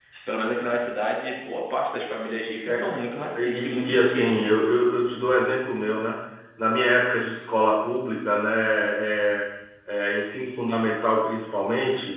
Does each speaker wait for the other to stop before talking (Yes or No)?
No